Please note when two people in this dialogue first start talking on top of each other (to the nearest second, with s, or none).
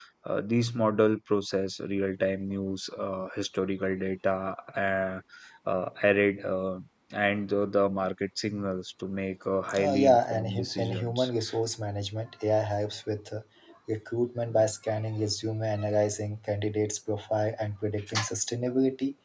10 s